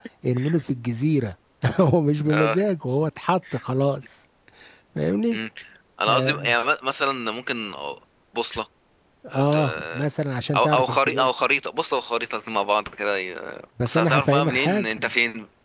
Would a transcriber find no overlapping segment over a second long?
No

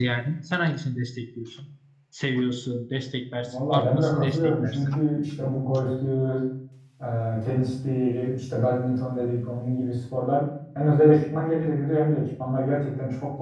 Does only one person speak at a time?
No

